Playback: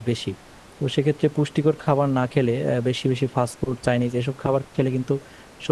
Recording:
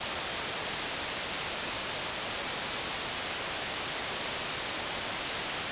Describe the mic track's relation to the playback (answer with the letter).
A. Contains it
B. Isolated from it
B